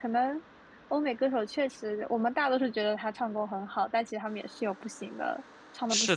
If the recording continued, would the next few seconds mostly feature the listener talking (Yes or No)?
Yes